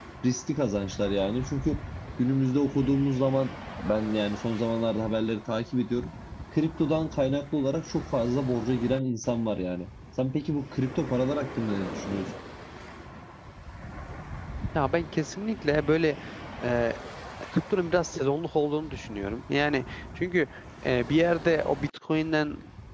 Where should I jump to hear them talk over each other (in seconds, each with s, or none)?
none